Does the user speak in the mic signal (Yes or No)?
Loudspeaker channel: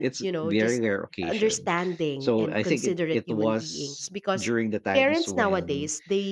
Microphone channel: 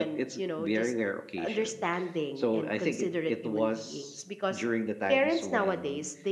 No